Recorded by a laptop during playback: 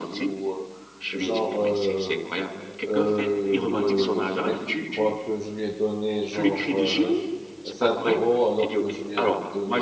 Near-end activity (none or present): present